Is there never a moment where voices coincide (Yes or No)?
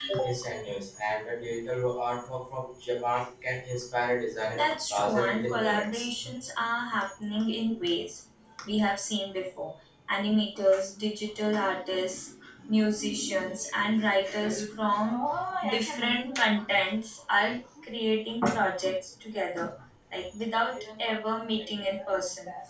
No